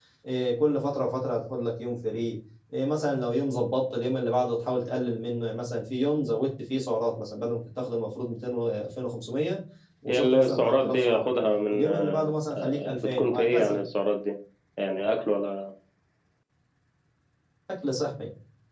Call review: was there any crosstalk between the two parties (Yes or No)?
Yes